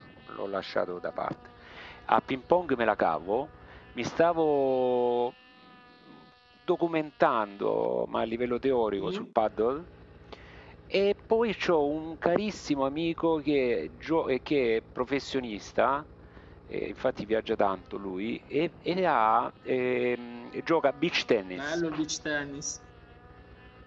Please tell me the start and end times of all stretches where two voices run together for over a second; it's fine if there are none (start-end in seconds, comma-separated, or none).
none